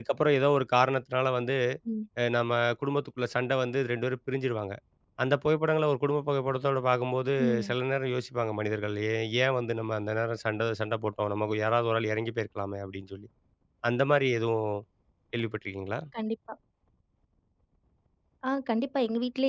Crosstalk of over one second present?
No

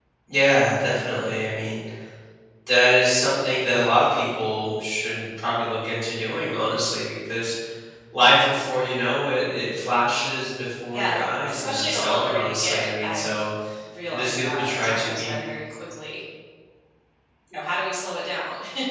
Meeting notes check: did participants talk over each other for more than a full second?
Yes, from 10.9 s

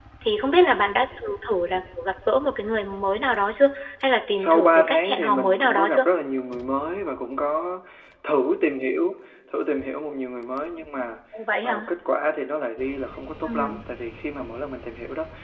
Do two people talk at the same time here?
Yes, from 4.3 s

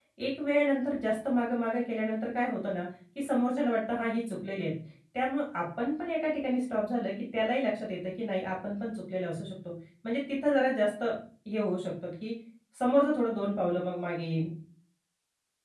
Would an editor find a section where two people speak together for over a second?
No

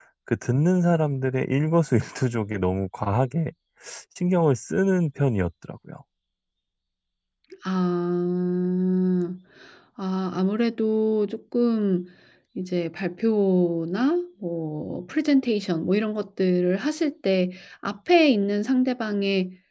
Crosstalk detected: No

